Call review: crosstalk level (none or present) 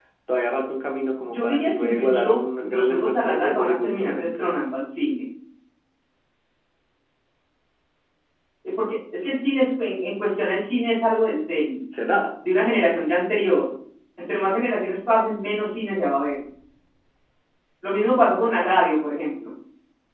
present